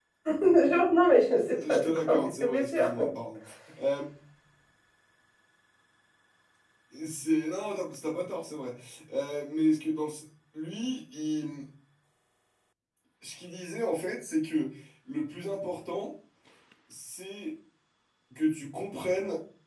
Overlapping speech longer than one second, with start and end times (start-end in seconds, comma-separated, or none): 1.5-2.9